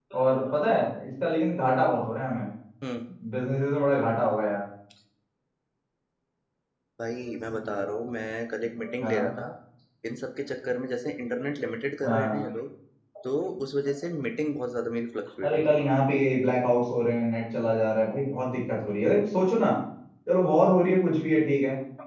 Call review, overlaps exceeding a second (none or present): none